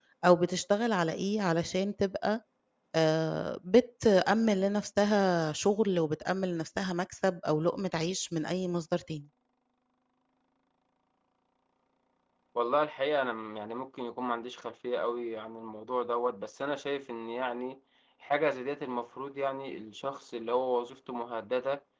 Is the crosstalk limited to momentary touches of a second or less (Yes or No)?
Yes